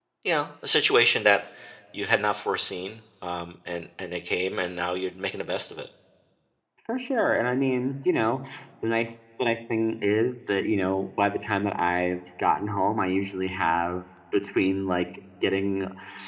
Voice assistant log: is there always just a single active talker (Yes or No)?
Yes